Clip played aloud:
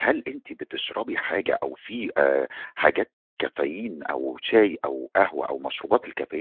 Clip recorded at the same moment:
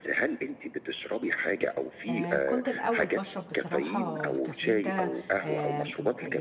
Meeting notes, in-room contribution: present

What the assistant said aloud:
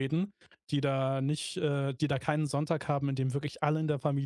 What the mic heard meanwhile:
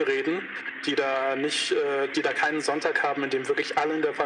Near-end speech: none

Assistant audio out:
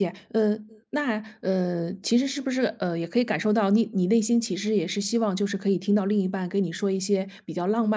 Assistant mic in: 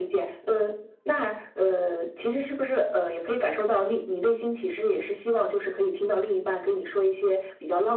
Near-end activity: none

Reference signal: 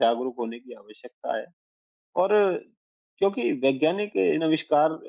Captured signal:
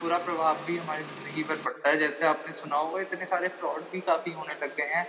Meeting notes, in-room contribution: present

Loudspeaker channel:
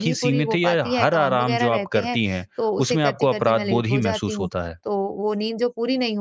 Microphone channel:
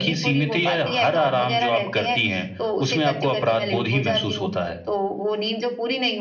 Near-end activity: none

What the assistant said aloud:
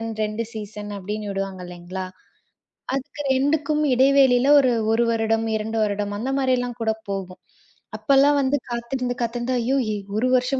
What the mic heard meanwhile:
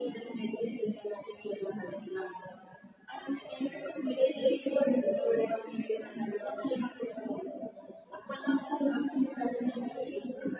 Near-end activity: none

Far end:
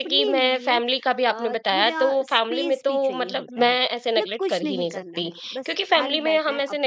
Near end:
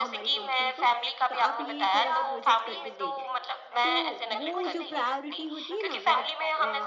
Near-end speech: present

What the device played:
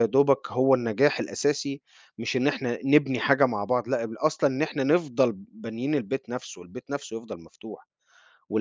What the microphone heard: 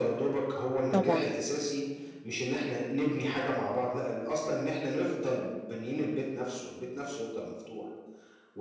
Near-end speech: present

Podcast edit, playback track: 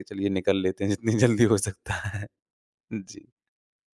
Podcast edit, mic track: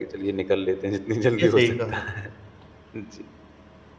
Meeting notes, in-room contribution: present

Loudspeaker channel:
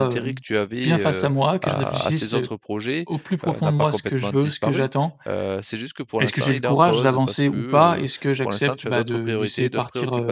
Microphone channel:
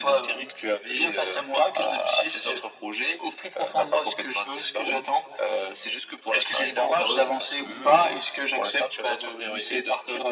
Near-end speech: none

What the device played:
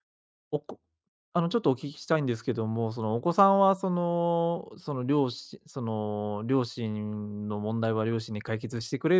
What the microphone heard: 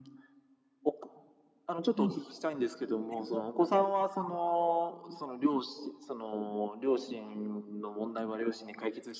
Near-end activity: present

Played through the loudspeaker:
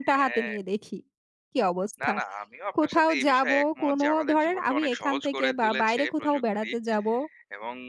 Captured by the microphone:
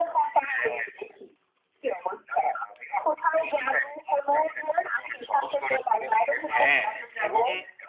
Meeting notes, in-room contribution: present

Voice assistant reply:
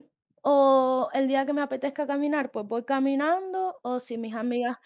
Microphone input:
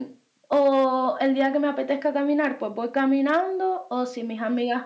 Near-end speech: none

